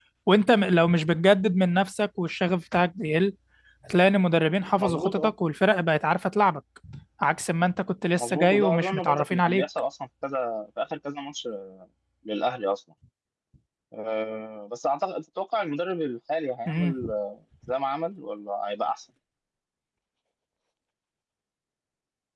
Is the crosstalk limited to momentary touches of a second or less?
No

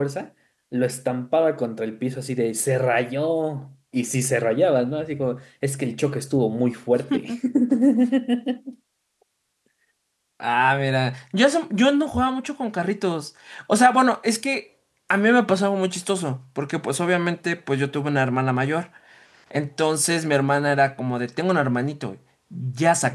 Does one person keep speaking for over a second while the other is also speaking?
No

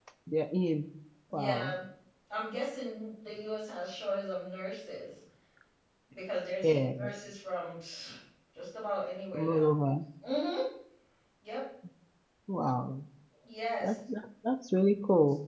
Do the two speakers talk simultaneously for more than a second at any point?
No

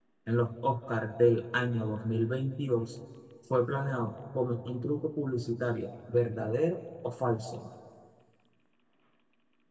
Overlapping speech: No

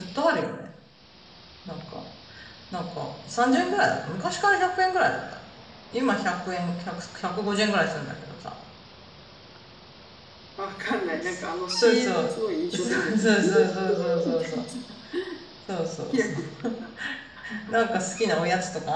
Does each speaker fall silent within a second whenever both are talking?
No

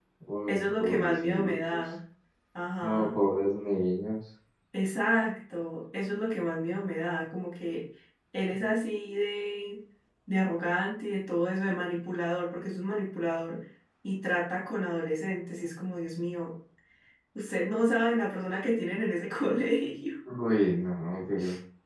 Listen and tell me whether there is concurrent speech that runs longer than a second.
Yes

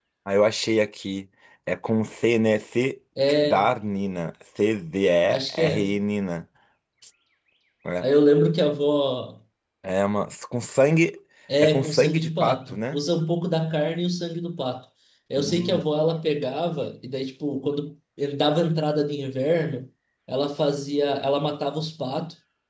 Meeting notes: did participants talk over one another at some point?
Yes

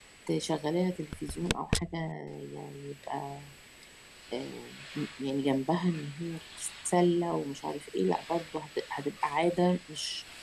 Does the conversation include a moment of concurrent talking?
No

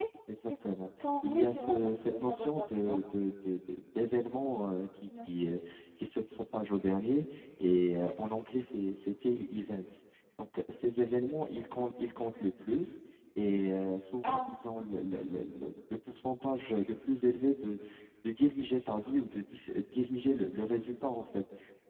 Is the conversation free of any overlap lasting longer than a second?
No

